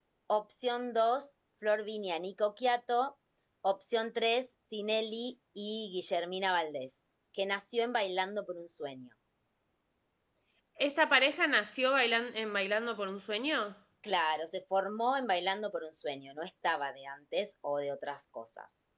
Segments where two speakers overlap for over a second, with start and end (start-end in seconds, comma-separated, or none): none